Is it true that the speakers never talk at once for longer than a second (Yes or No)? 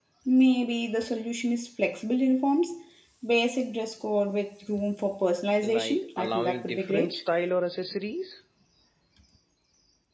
No